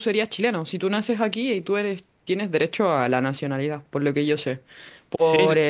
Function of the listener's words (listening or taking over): listening